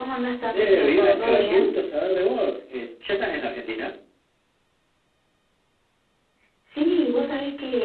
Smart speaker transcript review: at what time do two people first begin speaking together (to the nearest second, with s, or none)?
1 s